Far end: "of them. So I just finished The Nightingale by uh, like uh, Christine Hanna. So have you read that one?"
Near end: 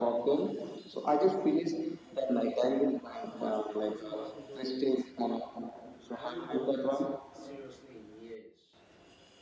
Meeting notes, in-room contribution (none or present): present